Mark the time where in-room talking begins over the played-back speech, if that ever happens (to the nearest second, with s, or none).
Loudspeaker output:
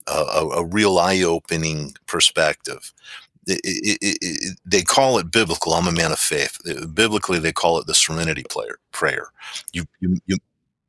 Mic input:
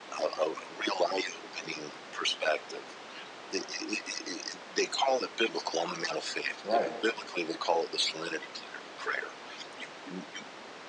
7 s